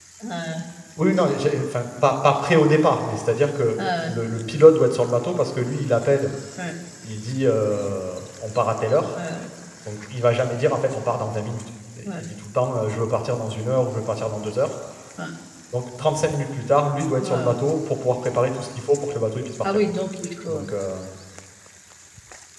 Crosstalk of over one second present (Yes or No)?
No